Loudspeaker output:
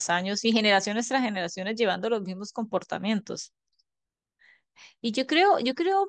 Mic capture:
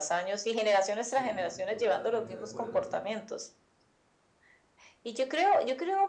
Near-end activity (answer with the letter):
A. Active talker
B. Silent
A